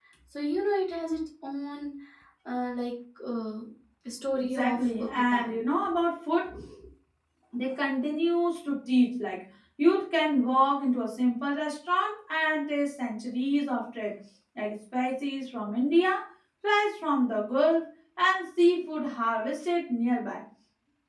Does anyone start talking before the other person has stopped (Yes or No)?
Yes